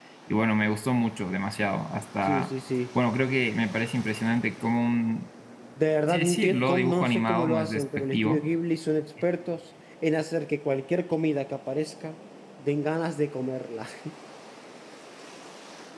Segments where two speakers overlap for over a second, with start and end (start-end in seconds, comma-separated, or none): 6.1-8.5